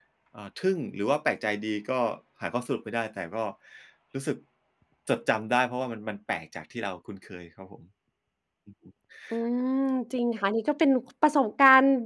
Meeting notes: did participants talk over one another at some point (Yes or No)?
No